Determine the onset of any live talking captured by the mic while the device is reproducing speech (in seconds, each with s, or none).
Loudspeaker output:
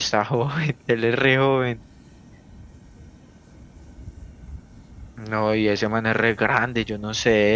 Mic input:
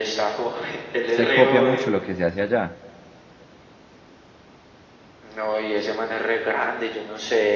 1.1 s